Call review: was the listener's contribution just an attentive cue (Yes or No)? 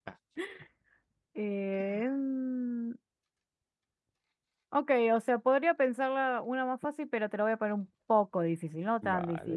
No